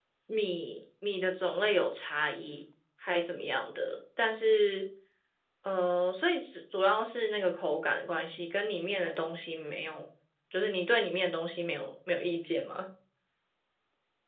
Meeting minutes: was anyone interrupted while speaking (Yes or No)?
No